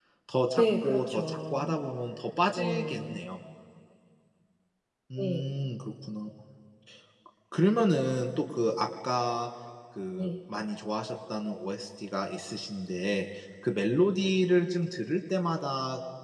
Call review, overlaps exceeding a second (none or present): present